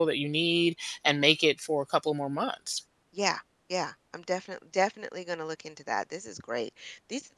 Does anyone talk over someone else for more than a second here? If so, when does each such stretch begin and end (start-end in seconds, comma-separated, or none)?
none